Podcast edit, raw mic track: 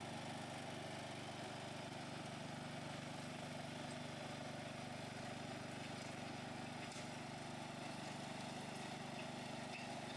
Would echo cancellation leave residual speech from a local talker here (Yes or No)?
No